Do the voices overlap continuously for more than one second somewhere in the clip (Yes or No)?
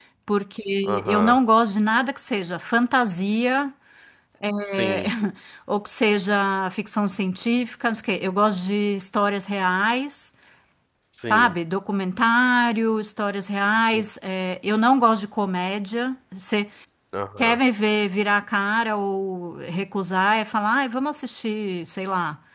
No